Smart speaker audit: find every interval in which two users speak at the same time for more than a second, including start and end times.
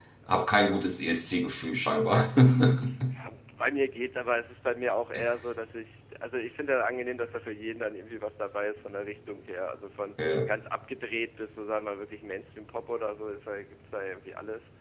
none

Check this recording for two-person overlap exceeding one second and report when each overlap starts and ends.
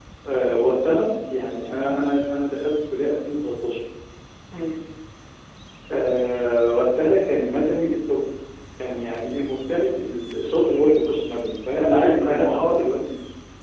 11.7-13.1

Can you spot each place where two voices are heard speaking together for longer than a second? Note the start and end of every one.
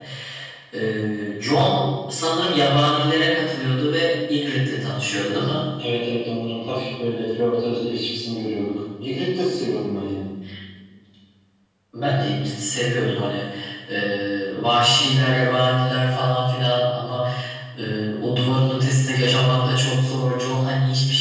none

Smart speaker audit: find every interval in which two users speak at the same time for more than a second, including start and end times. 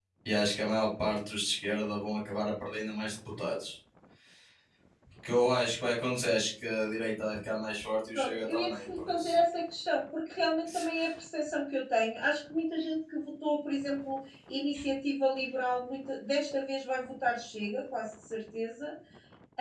8.2-9.3

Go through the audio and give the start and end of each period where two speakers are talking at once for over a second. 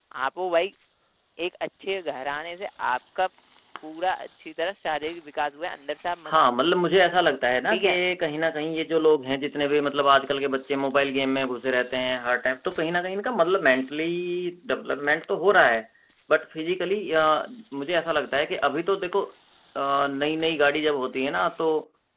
none

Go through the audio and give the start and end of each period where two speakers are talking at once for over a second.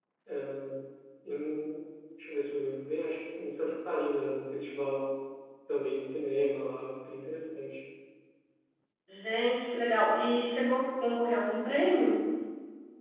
none

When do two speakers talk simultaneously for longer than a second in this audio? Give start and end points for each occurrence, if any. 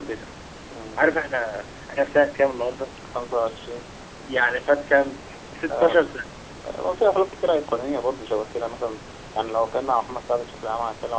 none

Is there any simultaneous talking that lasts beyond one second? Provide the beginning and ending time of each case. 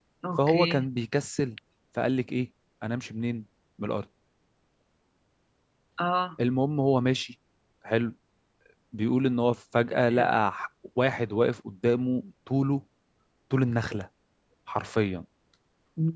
none

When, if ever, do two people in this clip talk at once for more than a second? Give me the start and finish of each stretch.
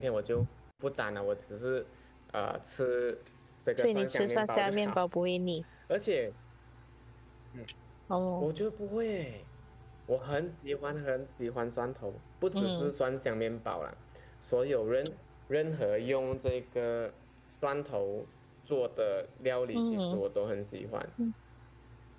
3.8-5.0

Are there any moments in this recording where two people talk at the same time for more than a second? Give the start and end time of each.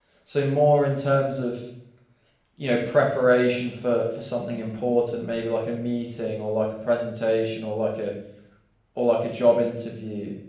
none

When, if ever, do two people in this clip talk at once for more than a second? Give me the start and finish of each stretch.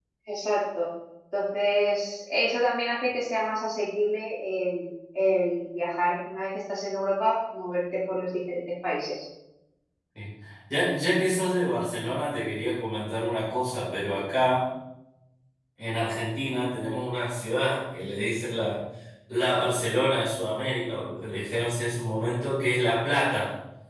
none

